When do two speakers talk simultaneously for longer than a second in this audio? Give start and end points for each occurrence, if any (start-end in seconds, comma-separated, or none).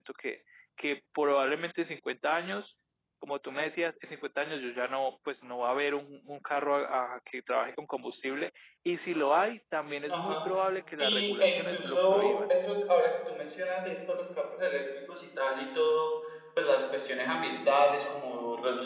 11.0-12.4